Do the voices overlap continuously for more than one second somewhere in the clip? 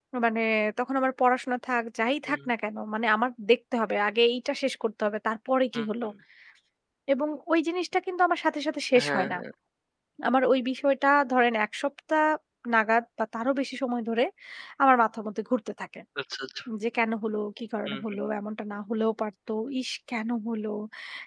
No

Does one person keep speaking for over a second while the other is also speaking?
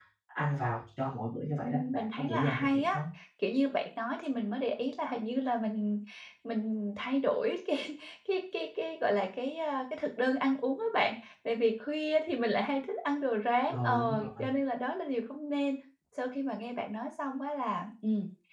Yes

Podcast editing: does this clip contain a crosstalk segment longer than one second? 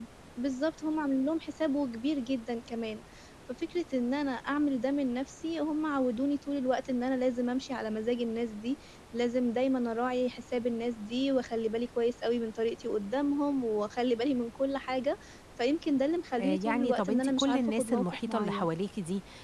Yes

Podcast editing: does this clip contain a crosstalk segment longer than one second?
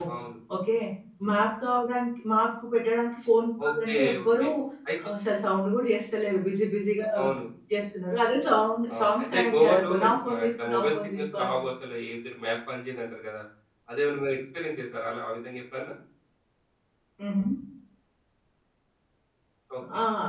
Yes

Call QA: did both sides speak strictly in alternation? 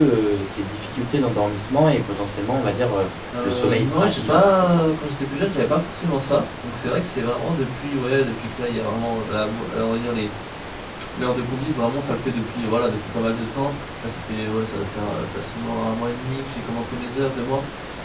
No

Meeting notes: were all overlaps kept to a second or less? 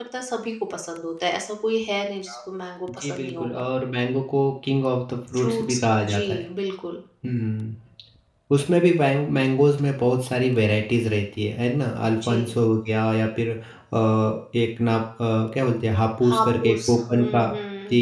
No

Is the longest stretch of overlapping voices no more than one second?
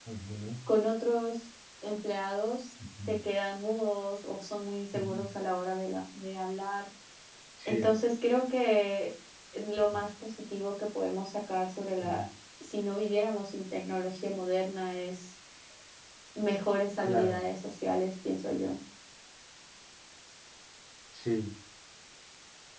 Yes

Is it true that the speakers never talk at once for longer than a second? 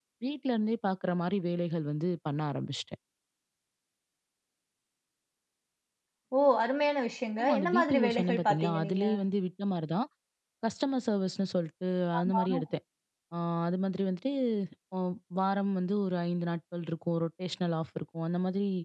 No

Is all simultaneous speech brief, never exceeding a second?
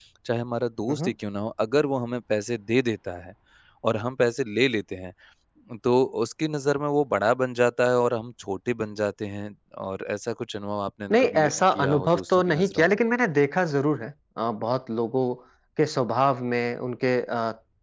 No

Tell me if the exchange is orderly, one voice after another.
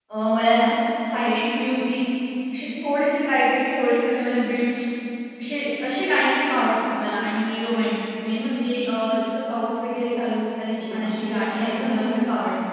No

